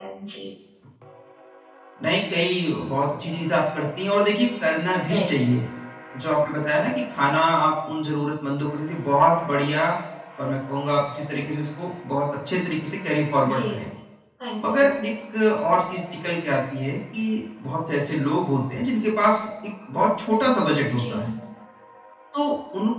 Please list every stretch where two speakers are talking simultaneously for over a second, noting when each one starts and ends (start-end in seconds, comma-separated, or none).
none